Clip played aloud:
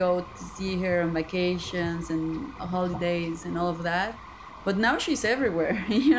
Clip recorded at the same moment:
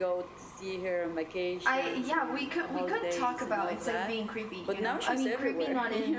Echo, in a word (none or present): present